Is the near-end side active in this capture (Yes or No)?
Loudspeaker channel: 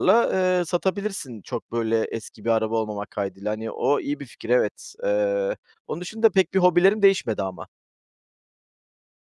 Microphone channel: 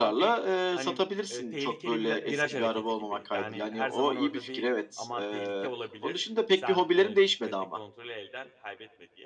Yes